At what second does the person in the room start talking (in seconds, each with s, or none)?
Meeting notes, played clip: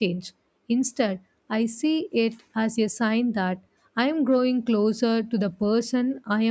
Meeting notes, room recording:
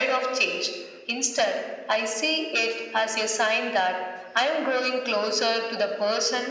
none